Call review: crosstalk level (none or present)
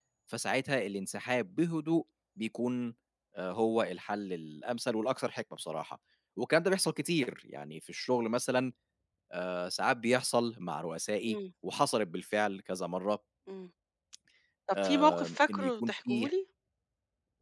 present